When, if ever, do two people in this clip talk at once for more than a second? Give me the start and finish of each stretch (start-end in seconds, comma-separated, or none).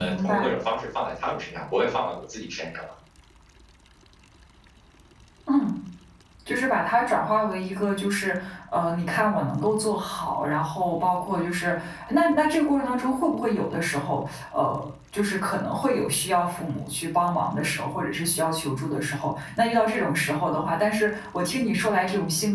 none